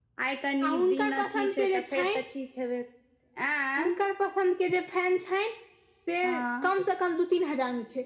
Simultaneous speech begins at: 0.7 s

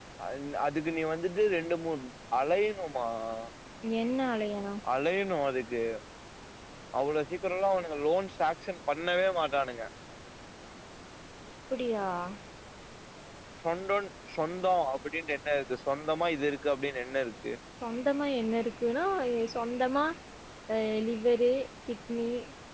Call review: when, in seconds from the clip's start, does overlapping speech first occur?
none

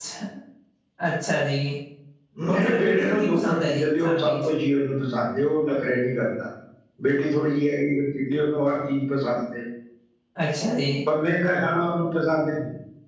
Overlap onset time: 2.5 s

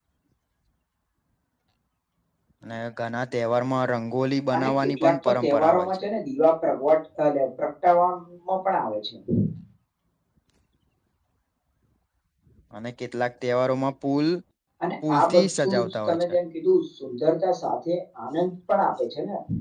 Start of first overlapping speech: 4.6 s

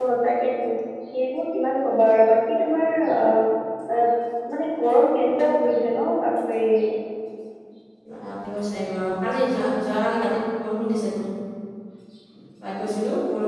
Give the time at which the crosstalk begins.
none

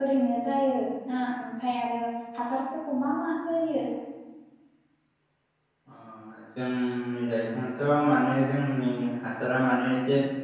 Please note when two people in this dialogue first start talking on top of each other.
none

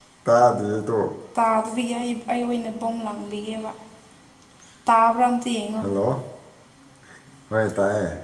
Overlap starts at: none

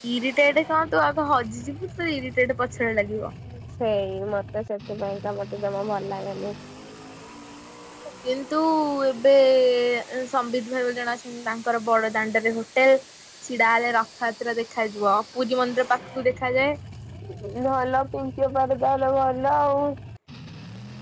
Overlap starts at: none

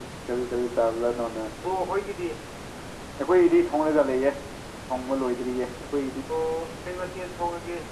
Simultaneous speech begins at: none

